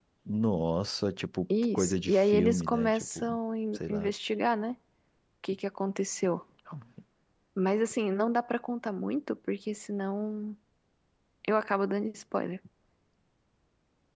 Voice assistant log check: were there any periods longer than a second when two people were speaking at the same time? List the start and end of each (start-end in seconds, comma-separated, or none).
1.7-3.3